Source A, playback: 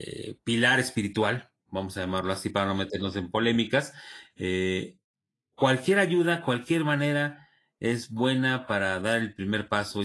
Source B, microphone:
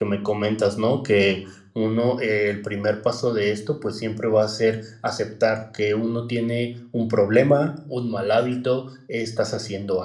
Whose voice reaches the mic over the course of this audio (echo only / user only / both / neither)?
user only